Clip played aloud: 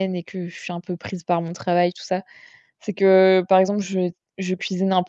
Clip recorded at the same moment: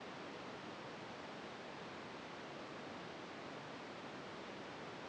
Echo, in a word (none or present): none